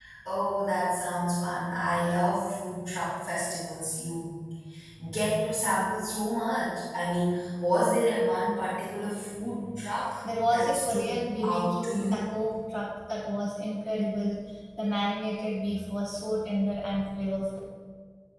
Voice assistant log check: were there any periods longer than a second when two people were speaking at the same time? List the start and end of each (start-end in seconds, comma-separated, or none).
10.3-12.2